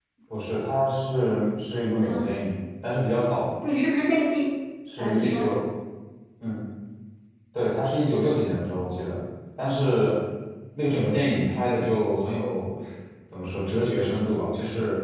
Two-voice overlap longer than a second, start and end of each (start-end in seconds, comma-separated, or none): none